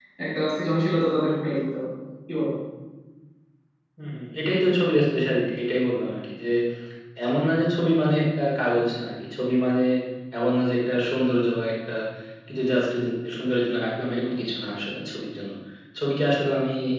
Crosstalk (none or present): none